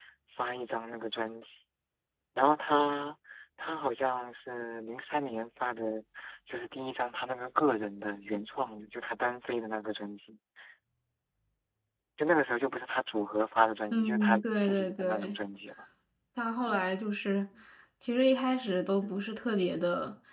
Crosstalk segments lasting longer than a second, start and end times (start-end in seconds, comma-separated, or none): 13.9-15.3